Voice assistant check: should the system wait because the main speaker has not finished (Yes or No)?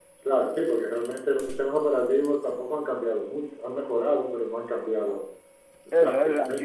No